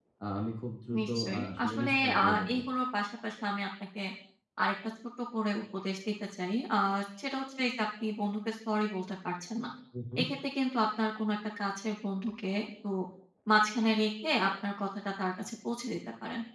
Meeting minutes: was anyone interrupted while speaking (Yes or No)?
Yes